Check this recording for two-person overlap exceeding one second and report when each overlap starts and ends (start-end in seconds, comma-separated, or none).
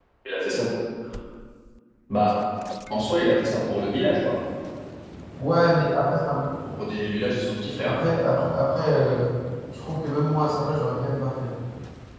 none